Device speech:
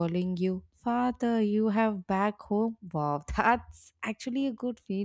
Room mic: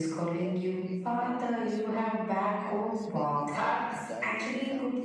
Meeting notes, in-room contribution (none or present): present